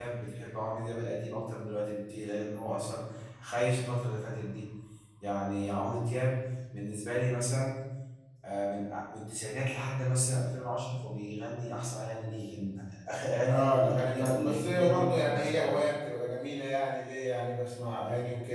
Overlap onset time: 13.5 s

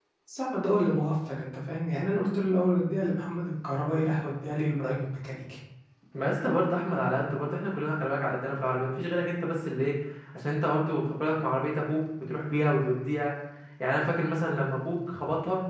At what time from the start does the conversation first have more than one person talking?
none

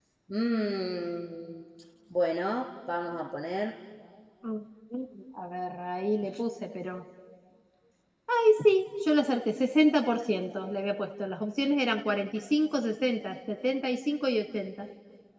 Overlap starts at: none

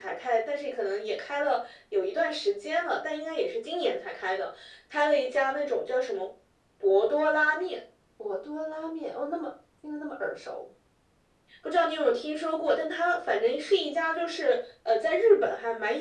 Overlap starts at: none

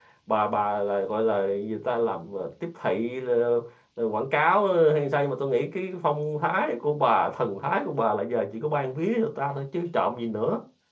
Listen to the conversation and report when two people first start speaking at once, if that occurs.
none

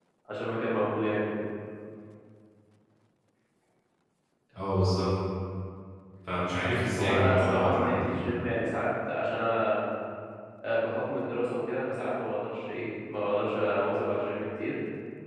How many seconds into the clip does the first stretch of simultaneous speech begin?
7.0 s

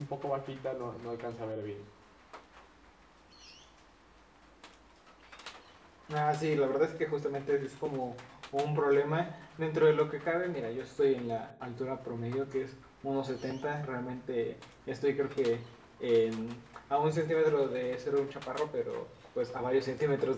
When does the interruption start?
none

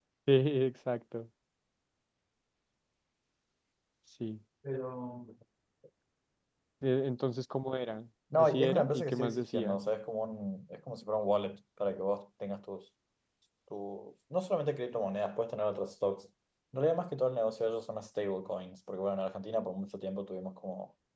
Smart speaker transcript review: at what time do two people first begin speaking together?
8.3 s

